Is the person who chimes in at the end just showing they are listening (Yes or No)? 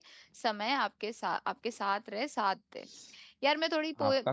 Yes